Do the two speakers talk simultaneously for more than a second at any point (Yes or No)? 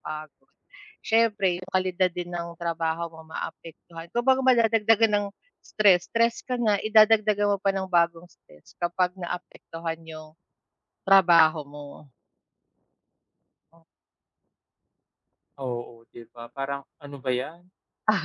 No